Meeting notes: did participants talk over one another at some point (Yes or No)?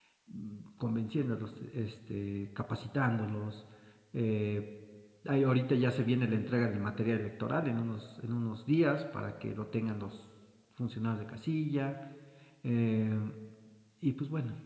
No